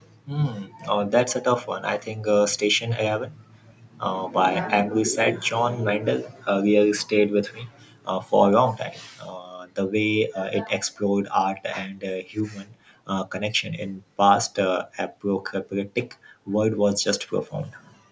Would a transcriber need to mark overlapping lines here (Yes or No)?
No